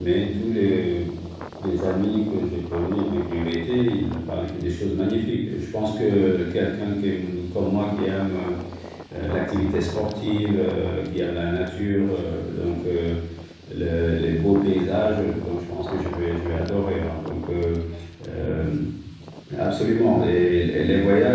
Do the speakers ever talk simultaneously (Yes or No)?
No